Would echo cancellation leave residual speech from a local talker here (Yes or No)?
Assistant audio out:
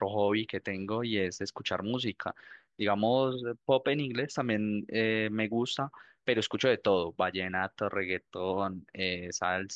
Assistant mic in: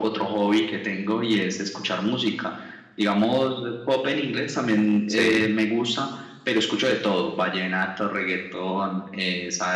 Yes